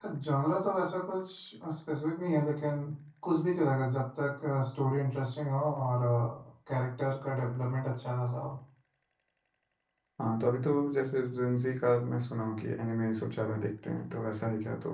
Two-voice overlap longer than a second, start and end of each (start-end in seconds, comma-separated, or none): none